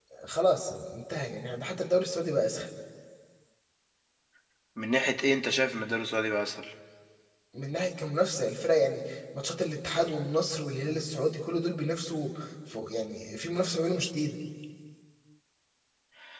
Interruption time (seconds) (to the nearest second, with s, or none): none